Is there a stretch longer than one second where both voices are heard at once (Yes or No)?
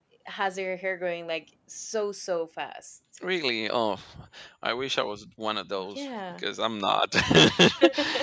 No